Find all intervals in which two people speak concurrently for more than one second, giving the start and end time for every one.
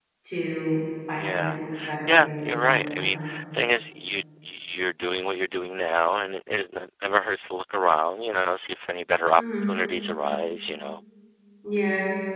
2.1-3.3

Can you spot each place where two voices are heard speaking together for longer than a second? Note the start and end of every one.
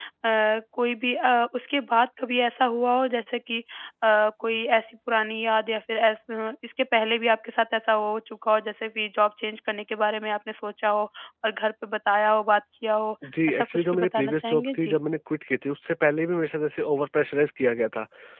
13.5-15.0

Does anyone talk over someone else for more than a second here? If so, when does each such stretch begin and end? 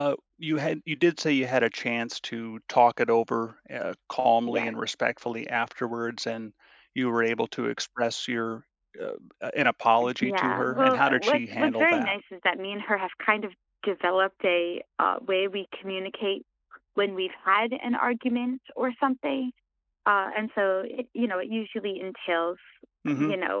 10.2-12.2

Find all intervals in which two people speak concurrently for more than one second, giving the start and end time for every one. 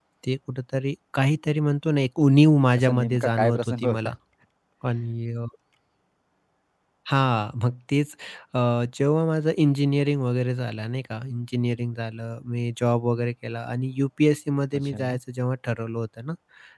2.8-4.0

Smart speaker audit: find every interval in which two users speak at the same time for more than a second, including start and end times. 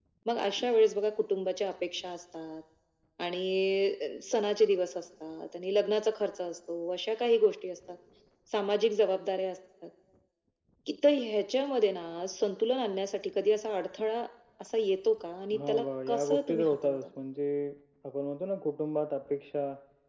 15.6-17.1

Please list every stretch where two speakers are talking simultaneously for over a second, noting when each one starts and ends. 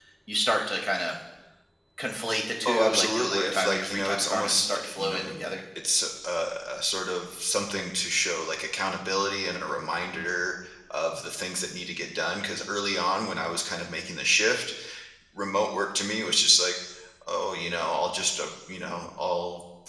2.7-5.3

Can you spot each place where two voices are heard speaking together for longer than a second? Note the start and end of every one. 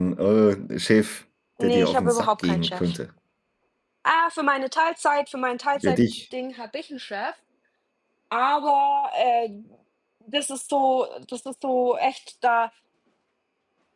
1.6-3.0

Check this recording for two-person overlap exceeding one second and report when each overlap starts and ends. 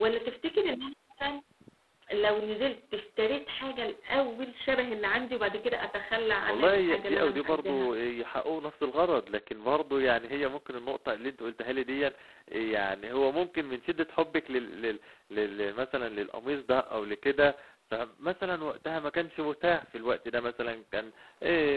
6.5-7.9

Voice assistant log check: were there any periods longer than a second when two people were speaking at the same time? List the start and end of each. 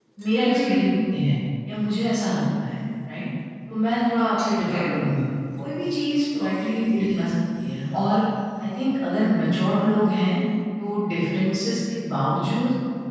none

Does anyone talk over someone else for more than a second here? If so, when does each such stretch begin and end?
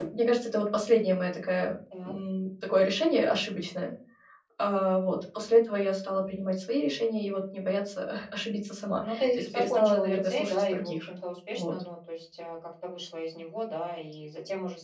9.0-11.1

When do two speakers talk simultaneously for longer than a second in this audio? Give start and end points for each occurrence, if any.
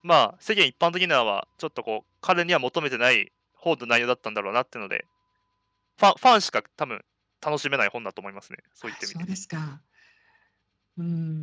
none

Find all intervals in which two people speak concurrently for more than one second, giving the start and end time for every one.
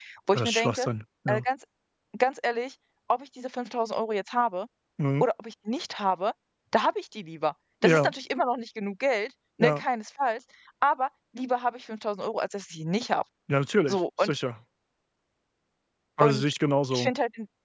none

